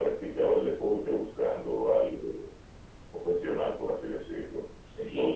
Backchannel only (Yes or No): No